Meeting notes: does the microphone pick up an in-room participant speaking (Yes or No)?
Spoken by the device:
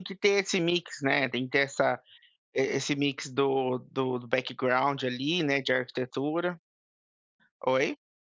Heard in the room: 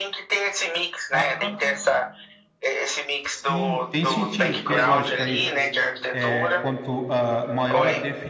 Yes